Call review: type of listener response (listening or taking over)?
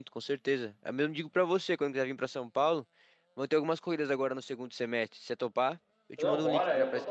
taking over